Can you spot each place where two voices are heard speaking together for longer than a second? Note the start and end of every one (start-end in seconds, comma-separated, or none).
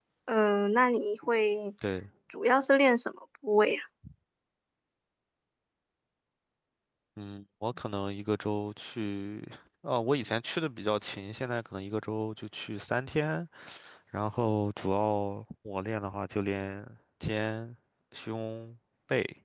none